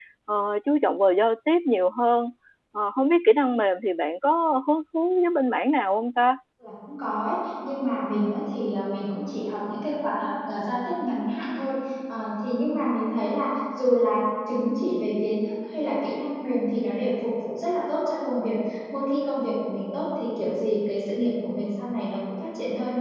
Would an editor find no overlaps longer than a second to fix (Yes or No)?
Yes